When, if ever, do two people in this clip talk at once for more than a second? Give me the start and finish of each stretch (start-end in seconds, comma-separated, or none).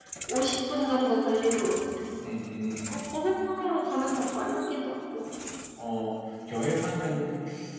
none